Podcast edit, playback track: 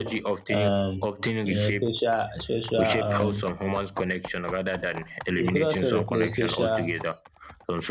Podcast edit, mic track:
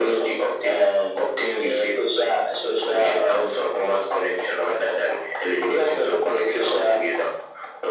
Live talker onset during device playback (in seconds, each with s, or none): none